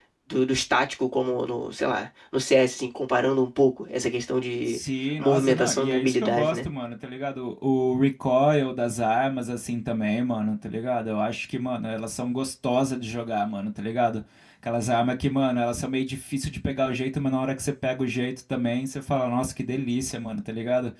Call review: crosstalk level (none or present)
present